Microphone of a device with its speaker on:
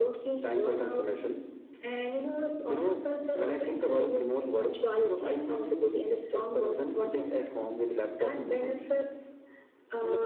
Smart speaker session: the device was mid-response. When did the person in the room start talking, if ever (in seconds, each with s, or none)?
none